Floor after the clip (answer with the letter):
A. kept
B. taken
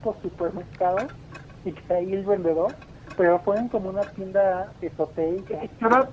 B